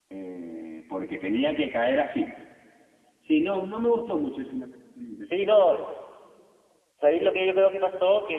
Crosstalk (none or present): none